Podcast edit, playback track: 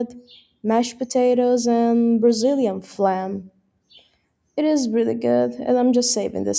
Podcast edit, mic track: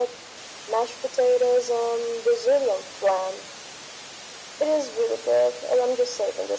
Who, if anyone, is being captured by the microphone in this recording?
echo only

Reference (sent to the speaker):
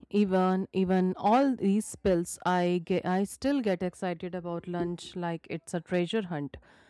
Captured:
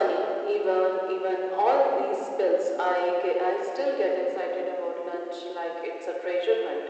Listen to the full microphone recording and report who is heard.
echo only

